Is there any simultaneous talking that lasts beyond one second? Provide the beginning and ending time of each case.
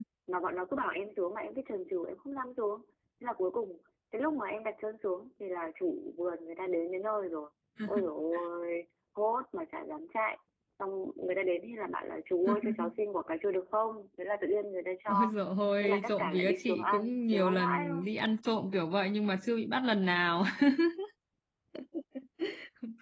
15.8-18.1

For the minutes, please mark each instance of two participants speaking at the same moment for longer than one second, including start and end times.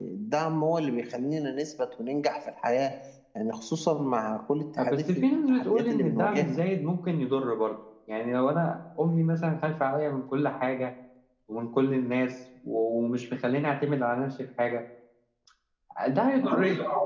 4.8-6.5

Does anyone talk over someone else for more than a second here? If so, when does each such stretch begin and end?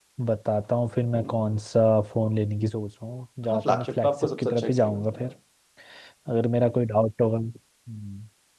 3.5-5.3

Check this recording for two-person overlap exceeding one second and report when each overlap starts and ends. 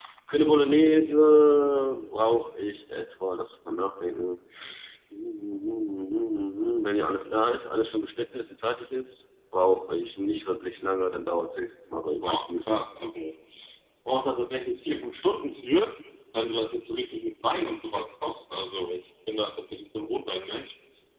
none

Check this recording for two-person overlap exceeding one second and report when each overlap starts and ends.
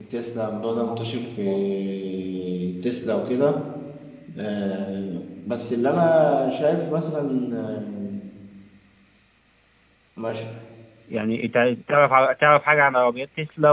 none

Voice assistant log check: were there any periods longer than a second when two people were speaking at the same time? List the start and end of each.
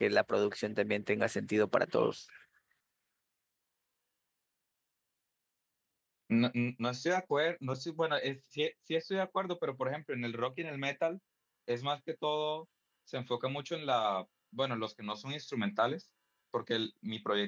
none

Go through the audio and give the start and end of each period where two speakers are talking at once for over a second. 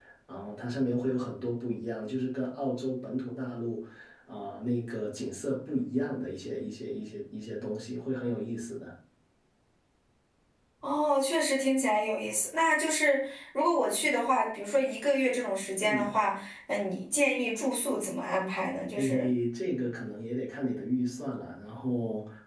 none

